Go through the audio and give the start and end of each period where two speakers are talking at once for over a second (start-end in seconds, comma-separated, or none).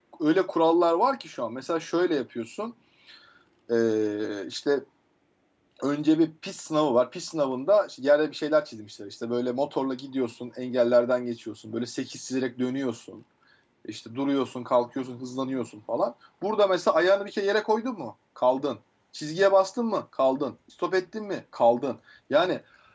none